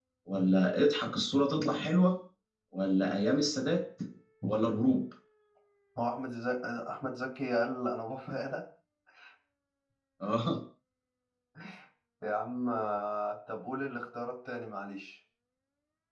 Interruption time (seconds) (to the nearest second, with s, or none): none